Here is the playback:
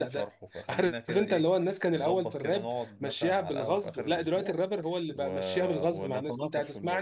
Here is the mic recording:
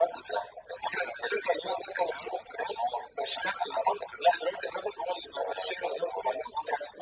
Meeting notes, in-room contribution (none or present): none